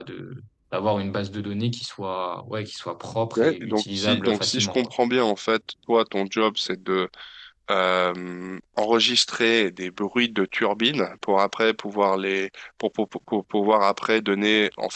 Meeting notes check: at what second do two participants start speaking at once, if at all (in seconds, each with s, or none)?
3.4 s